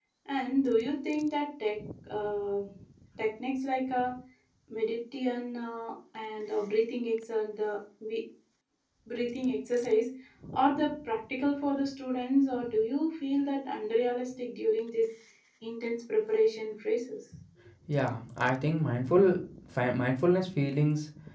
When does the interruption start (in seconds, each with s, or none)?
none